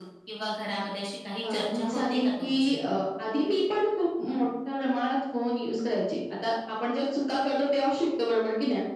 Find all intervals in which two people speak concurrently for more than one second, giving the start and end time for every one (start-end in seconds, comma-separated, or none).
1.4-2.8